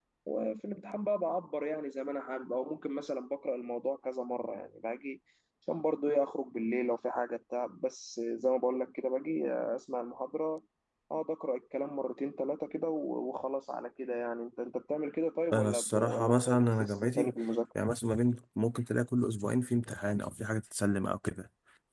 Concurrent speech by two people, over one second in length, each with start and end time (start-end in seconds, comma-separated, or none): 15.5-17.3